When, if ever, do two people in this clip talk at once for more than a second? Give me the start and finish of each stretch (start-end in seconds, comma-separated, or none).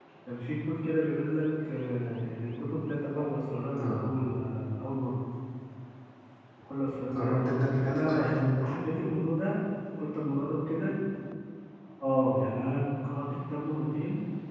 7.1-8.8